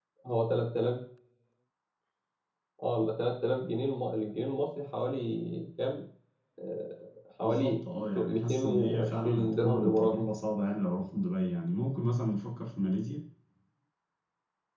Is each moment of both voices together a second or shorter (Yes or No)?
No